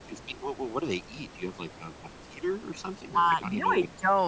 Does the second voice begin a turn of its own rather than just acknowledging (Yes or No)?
Yes